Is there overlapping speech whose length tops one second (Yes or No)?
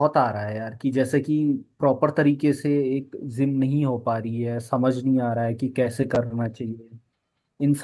No